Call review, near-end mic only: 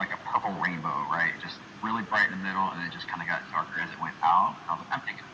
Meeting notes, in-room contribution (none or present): none